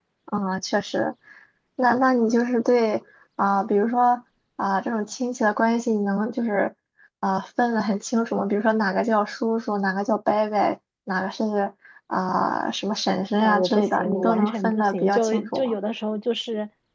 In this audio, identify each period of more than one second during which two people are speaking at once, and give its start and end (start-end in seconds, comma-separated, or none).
13.4-15.8